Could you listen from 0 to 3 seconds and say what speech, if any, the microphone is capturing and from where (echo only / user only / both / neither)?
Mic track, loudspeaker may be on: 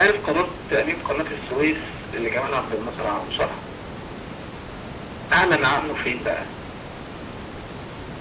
echo only